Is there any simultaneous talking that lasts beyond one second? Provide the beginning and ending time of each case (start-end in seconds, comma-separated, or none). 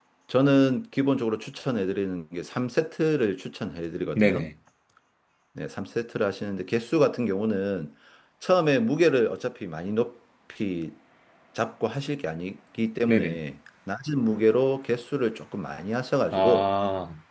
none